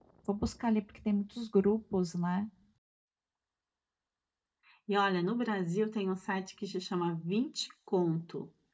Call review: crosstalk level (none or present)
none